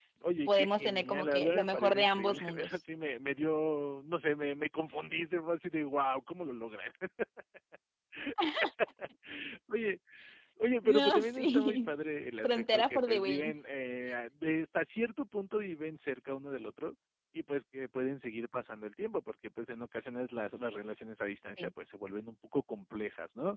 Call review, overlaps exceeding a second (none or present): present